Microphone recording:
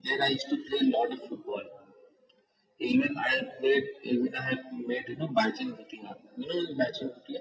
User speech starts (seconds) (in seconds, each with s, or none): none